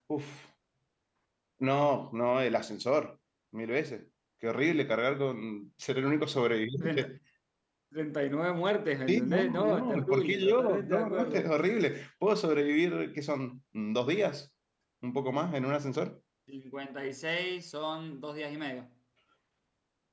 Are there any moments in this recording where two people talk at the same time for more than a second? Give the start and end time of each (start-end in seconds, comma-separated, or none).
9.1-11.5